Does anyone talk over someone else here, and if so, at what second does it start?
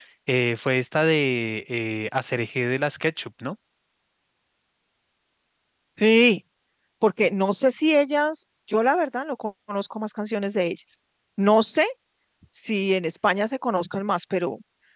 none

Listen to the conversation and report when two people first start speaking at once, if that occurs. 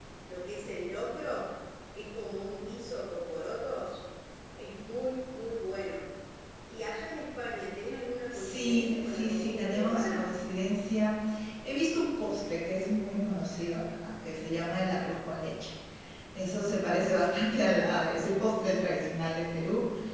8 s

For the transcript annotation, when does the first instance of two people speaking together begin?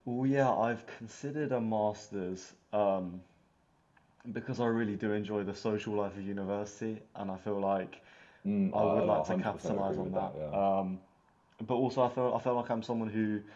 9 s

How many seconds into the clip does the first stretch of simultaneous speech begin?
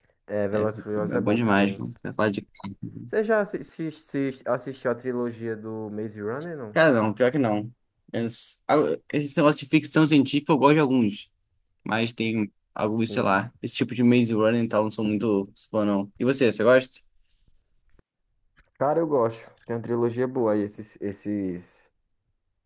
1 s

